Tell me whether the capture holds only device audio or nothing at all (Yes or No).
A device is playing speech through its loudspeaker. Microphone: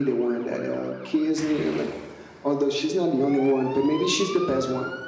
Yes